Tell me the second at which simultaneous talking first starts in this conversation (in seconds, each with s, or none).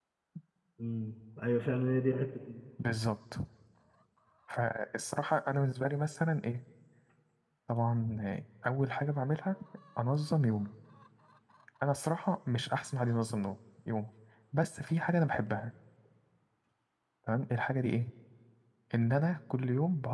none